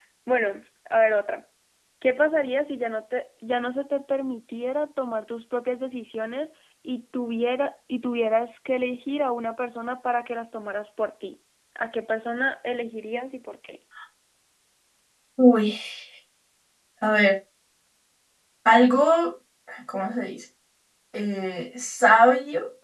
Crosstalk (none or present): none